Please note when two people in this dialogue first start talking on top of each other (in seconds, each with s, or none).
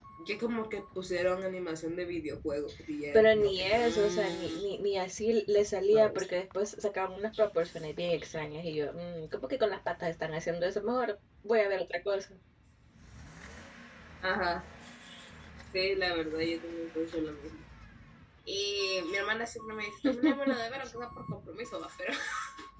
3.1 s